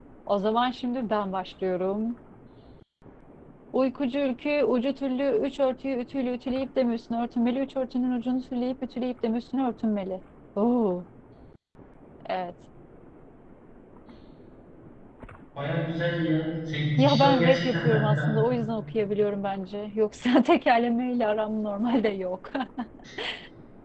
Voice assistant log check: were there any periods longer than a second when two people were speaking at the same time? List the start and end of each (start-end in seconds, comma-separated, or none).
17.0-18.3